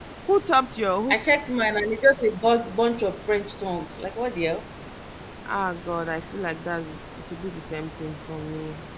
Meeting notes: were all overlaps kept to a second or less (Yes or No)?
Yes